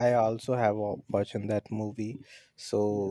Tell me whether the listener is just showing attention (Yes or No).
Yes